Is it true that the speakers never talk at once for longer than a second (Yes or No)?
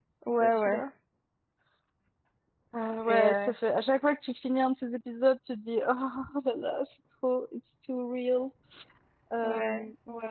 Yes